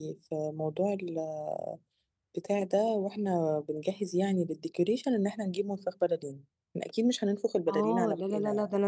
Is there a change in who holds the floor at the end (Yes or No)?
Yes